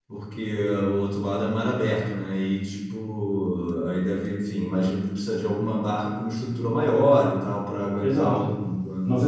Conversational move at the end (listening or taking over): taking over